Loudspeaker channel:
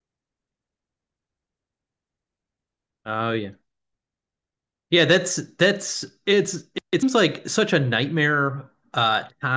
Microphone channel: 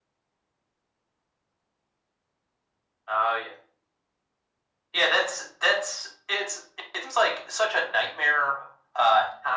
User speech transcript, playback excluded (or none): none